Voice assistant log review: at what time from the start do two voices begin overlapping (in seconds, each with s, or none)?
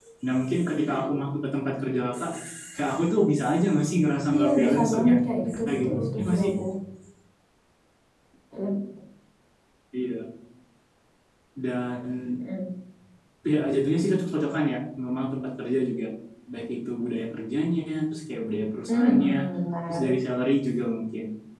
4.3 s